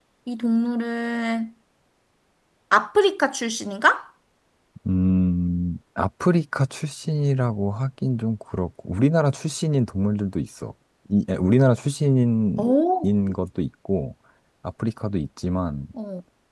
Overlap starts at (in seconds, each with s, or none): none